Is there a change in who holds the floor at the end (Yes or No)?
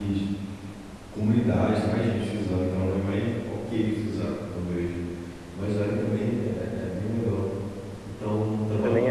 No